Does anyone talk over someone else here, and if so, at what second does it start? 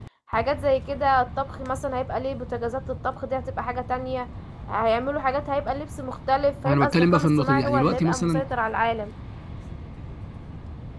6.6 s

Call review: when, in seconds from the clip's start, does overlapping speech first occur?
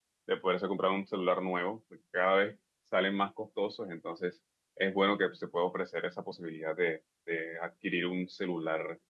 none

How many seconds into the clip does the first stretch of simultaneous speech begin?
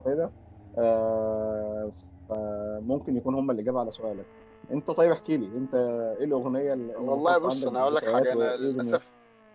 7.0 s

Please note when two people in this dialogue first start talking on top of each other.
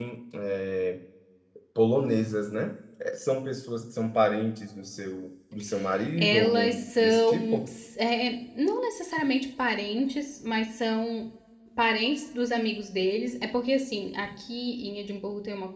6.2 s

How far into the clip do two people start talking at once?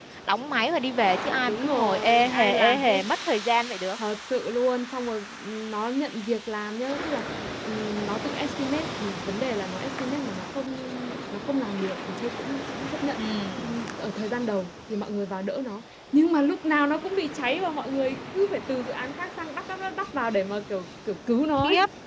1.4 s

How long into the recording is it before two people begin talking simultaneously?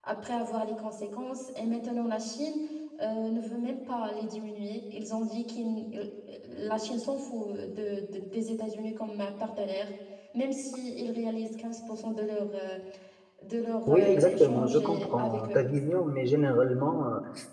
13.9 s

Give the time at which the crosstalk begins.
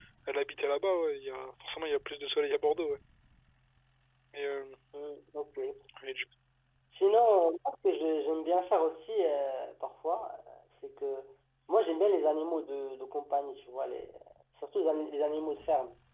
none

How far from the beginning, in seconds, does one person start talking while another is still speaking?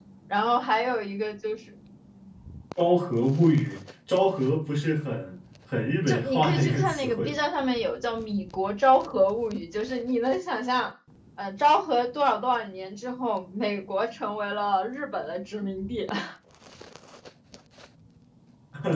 6.1 s

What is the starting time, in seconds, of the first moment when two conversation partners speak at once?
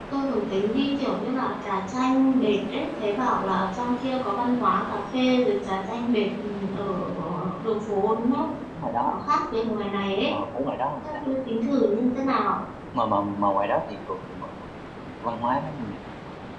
none

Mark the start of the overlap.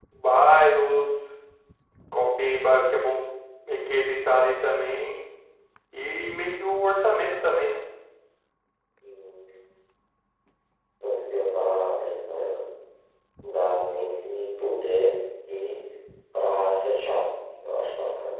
none

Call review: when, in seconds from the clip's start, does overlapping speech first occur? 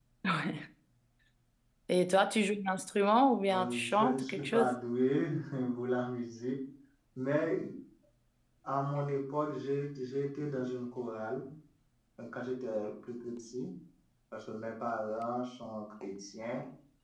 3.5 s

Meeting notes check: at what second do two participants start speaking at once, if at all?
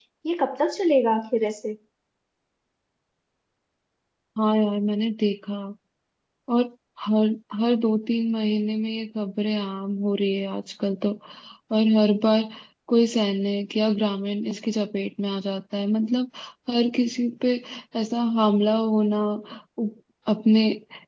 none

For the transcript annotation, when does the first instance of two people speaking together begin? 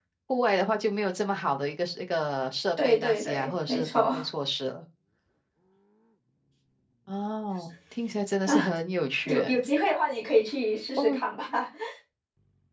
2.8 s

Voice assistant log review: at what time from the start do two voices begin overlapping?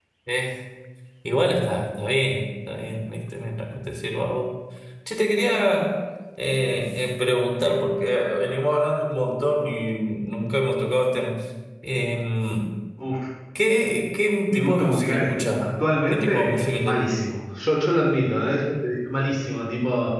14.5 s

